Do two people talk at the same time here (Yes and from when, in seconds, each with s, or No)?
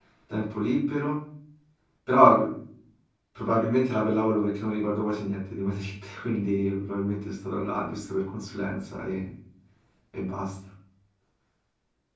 No